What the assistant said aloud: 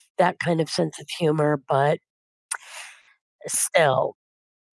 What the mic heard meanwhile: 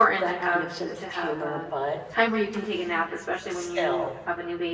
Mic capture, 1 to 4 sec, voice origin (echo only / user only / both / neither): both